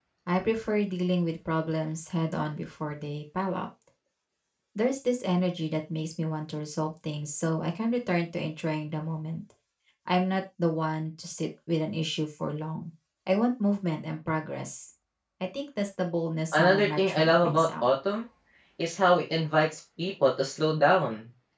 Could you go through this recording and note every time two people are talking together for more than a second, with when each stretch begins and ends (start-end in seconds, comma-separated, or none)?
16.5-17.9